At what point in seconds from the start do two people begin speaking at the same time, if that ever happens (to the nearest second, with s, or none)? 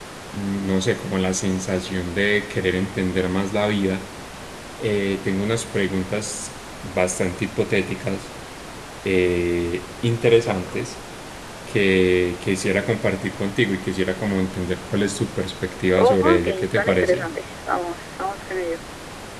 16 s